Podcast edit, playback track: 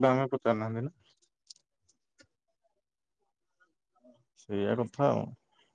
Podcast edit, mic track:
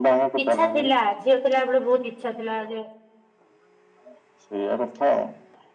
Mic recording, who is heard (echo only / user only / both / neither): both